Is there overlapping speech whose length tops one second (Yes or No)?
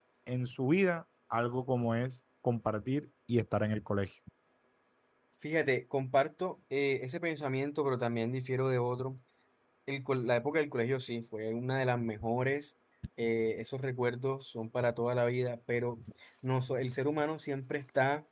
No